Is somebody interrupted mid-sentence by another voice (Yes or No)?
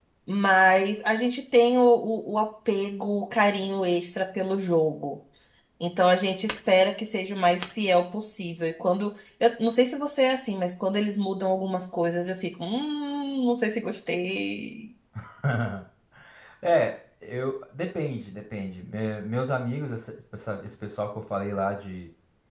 No